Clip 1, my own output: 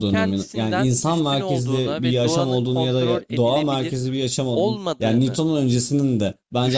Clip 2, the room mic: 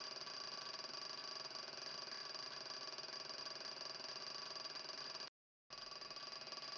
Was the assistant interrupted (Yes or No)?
No